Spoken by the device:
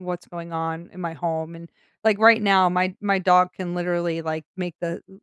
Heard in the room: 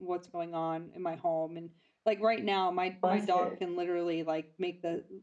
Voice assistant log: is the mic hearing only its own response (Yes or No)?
No